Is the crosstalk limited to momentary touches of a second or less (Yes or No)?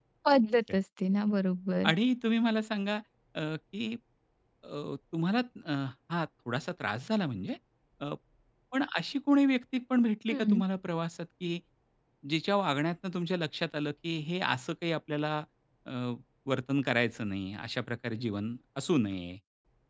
Yes